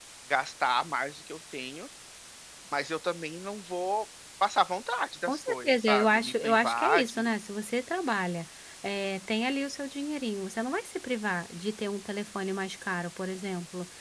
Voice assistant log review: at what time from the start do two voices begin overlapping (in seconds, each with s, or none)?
5.3 s